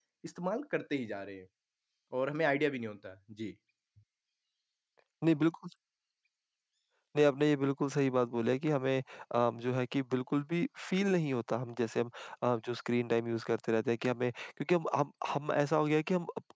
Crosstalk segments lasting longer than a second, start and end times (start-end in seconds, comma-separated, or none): none